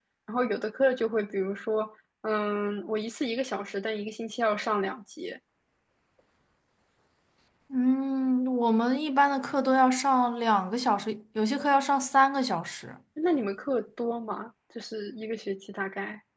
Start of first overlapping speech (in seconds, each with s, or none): none